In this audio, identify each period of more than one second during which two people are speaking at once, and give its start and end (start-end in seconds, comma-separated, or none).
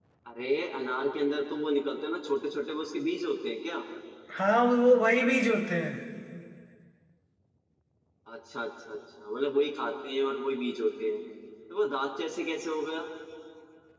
none